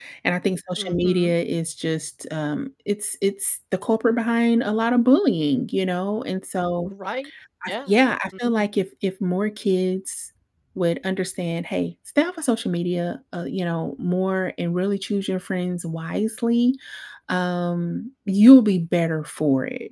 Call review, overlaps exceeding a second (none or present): none